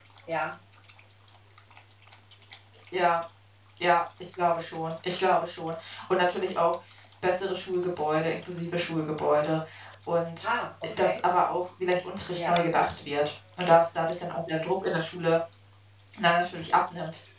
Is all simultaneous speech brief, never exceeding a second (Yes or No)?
Yes